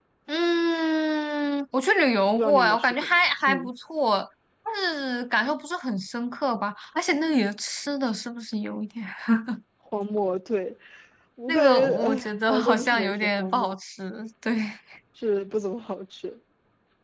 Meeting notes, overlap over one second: present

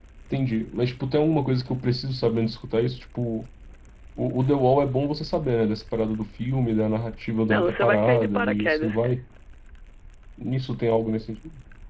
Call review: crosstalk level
present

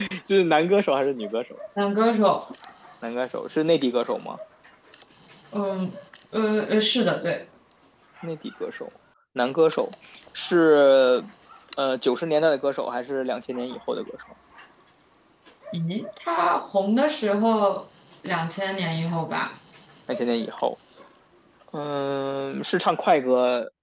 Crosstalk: none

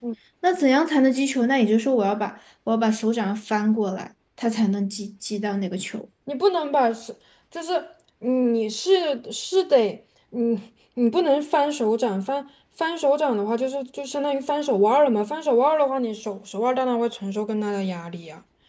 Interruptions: none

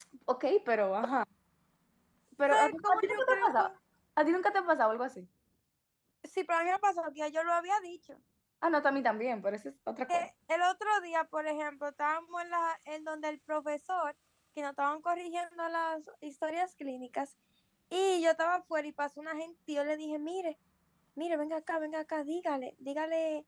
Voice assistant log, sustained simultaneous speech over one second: present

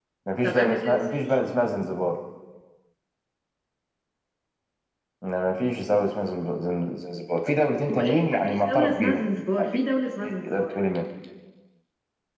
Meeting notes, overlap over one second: present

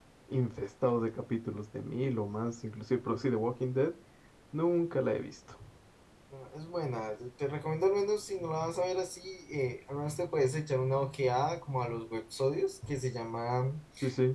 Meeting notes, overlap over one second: none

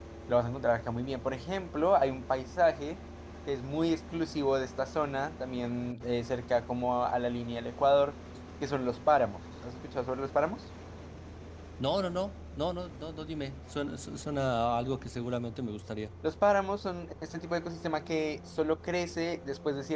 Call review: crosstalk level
none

